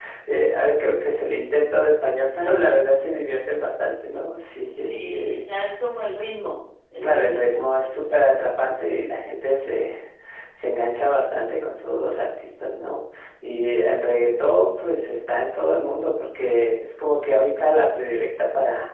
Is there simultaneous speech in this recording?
Yes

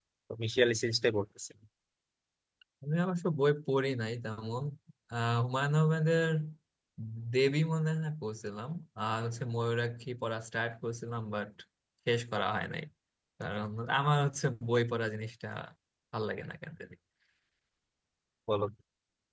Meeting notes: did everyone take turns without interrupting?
Yes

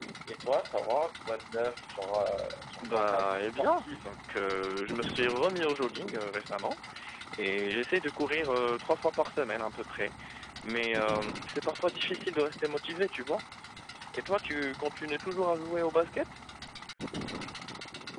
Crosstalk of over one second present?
Yes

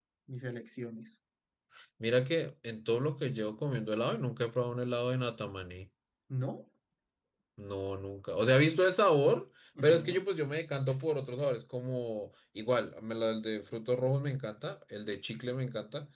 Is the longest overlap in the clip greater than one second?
No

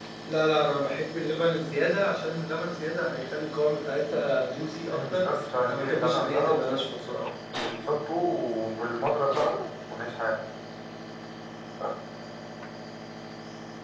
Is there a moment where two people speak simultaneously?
Yes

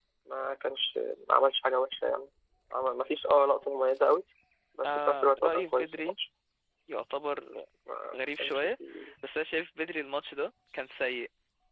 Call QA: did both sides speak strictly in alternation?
No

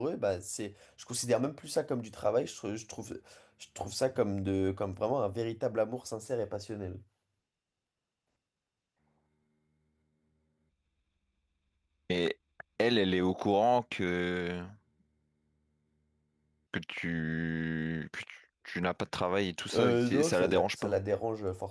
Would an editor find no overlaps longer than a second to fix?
No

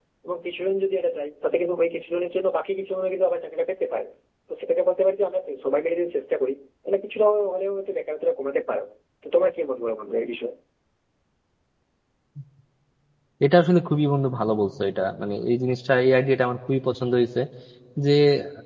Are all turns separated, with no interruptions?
Yes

